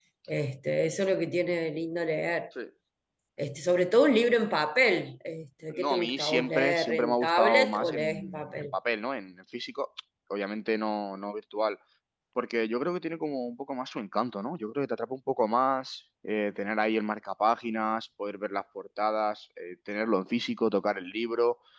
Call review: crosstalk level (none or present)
present